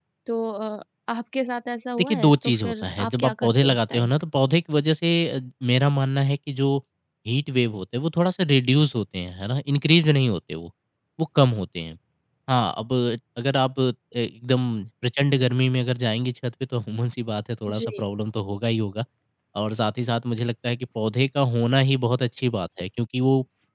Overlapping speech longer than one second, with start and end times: 2.0-4.1

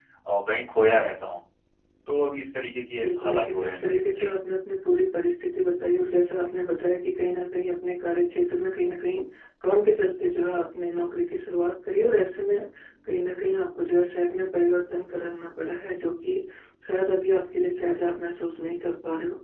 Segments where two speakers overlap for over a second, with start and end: 3.0-4.3

